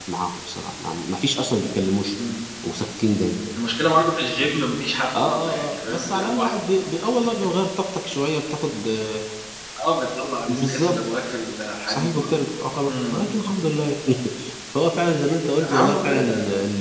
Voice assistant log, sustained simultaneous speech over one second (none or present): present